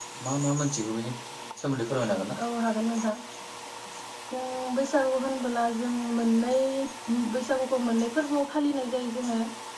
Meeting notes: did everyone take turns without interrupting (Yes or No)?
Yes